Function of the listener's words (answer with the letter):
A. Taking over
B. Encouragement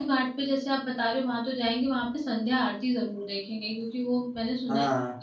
B